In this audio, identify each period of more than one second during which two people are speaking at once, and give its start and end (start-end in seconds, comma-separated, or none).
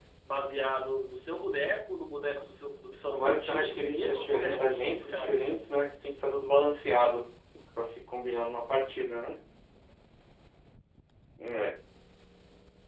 3.1-5.7